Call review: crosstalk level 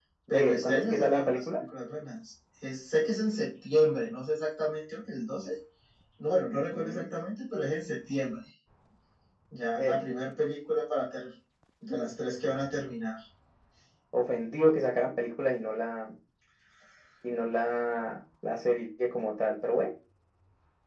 present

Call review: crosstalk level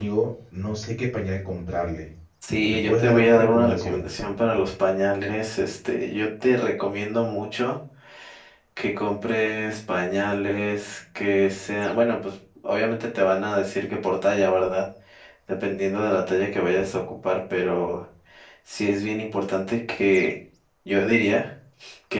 present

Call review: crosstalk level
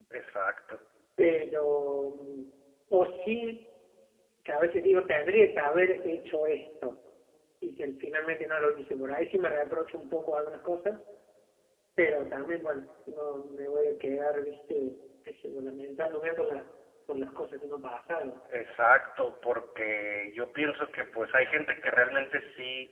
none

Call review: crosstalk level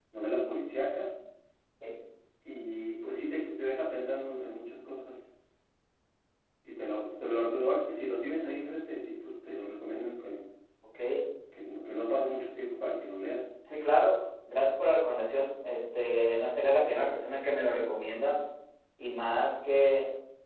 none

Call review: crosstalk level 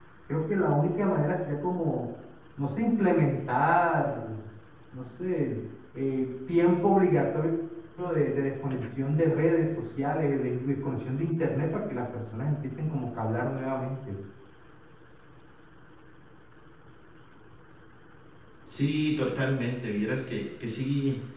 none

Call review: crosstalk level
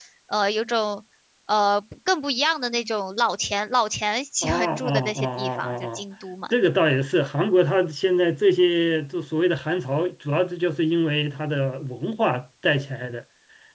present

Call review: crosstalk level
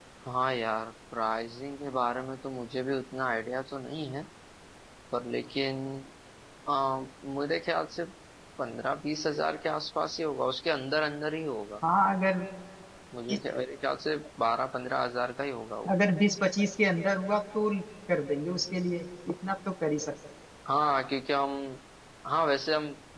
none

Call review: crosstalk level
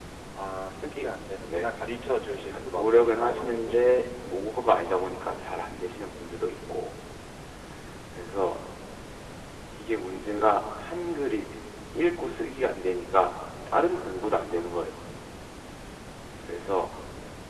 present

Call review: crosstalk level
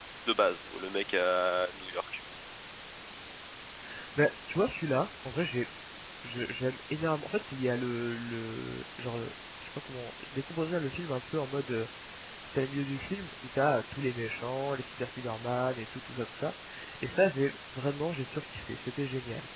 none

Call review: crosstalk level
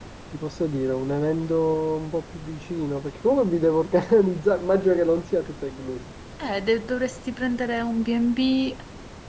none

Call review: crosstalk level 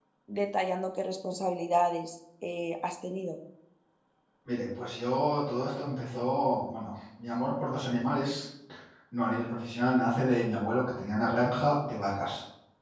none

